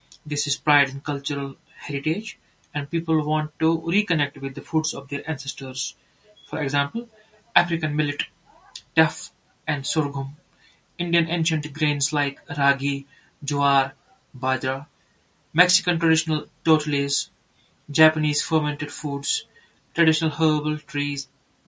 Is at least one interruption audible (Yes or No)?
No